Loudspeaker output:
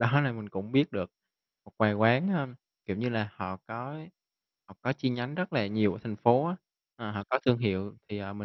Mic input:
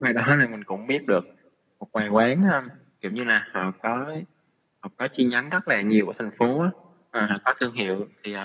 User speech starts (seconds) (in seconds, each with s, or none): none